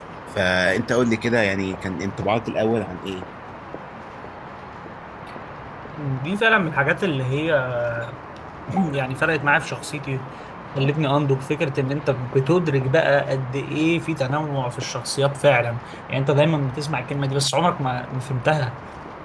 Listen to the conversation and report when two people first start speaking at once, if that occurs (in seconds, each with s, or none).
none